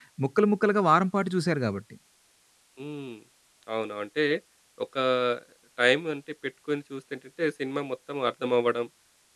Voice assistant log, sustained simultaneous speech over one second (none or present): none